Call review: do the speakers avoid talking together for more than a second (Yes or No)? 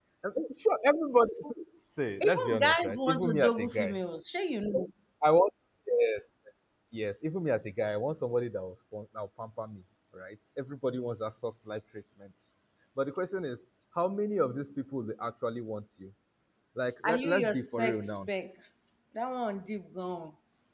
No